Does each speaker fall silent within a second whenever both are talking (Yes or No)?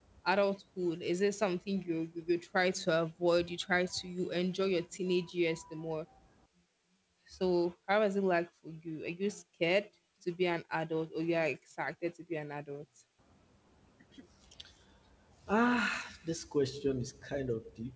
Yes